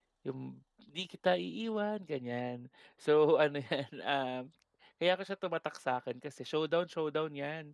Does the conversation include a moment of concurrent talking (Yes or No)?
No